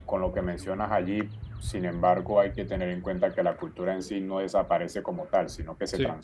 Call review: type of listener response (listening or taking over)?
listening